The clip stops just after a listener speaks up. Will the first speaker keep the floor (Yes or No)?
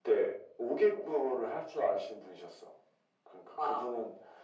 Yes